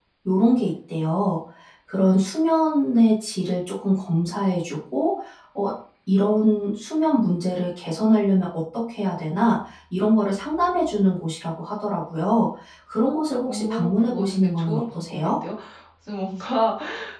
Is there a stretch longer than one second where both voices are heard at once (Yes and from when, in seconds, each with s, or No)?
Yes, from 13.4 s